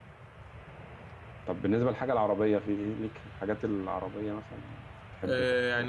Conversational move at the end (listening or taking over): taking over